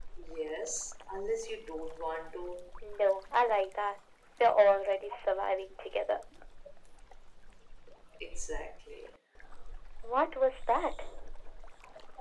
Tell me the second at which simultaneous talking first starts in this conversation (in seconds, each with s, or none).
none